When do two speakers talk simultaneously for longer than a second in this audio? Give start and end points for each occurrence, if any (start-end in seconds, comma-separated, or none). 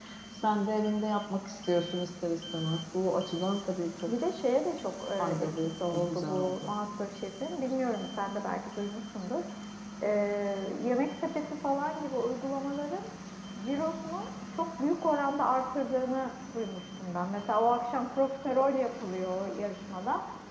5.2-6.7